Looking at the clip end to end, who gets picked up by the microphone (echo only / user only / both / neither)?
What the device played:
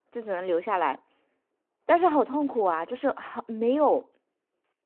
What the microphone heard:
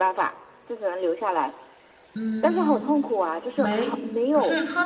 both